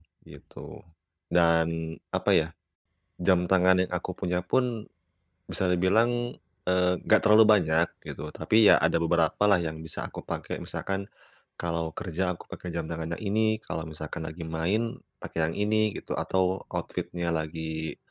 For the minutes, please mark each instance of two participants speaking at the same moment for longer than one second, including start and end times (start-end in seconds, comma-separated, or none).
none